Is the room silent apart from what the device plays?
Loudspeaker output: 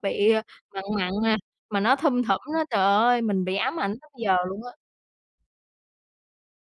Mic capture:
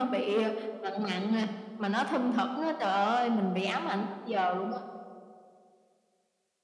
Yes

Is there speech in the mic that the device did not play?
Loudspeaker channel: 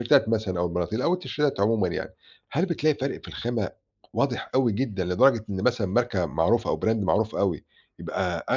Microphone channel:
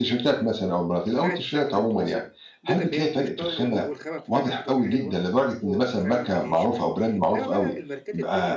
Yes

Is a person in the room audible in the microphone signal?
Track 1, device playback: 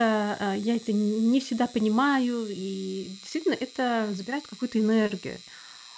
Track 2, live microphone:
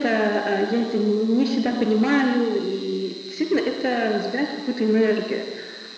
No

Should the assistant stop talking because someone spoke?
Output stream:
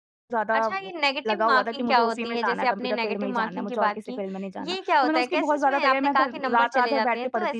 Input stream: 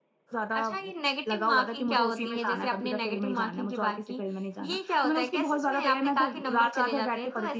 No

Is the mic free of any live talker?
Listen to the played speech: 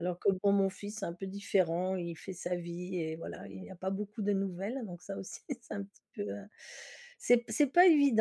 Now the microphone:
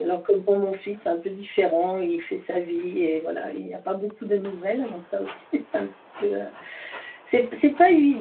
Yes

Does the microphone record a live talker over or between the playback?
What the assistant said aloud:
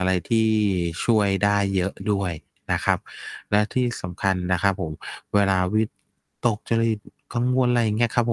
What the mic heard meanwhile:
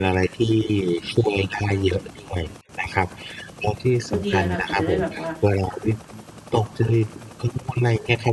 Yes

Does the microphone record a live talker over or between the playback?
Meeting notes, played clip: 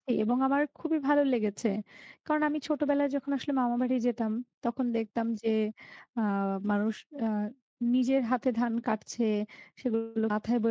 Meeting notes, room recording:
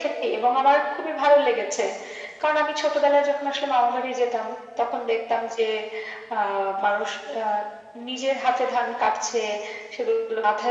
No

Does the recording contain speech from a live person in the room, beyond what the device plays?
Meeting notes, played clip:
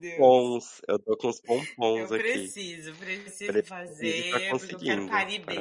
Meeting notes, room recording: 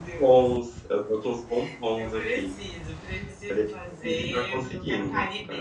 No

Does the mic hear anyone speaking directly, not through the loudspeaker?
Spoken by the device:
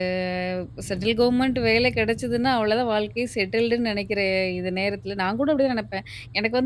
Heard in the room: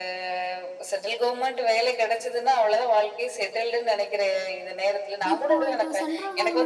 Yes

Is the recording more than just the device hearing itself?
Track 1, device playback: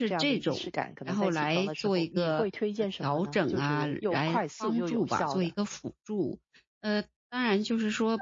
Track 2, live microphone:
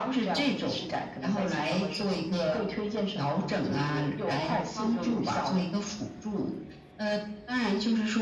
No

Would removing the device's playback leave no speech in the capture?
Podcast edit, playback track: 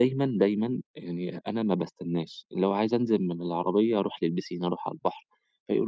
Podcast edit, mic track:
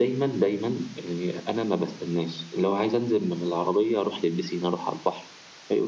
Yes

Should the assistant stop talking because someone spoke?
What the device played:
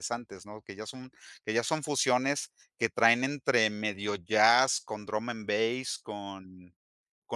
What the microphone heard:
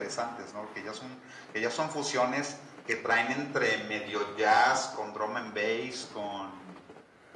No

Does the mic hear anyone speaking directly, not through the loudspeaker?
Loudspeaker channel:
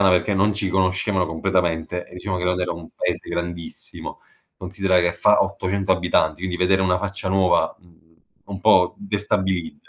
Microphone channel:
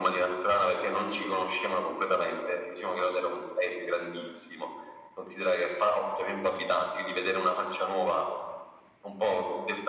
No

